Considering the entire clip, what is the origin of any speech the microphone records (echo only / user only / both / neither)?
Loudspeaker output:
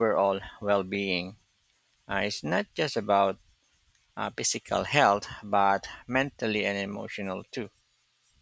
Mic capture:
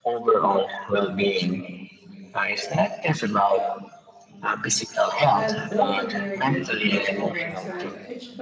both